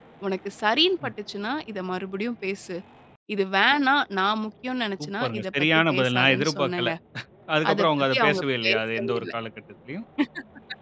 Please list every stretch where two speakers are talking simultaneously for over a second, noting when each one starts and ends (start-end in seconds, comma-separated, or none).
5.0-6.9, 7.7-9.3